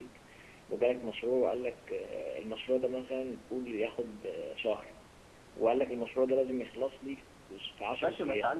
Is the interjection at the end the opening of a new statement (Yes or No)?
Yes